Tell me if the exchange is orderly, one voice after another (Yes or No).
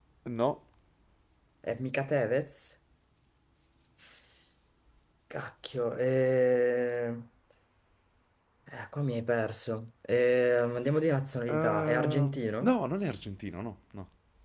No